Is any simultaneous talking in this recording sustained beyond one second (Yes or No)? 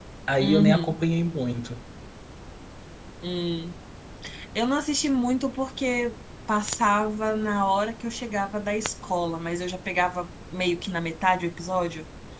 No